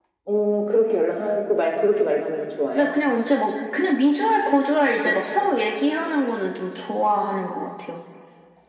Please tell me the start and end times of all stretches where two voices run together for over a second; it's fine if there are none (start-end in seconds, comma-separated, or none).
none